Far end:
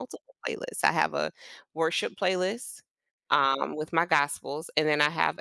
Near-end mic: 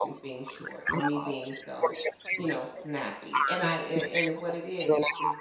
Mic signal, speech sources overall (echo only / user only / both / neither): both